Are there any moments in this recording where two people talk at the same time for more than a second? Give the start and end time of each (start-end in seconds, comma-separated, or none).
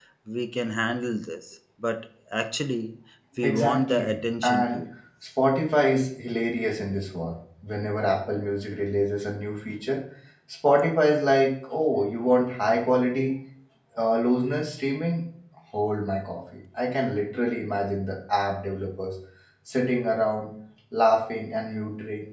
3.4-4.8